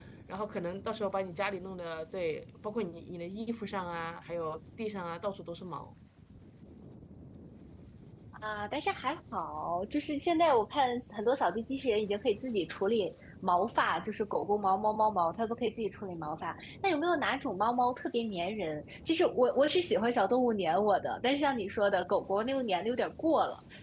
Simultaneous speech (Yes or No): No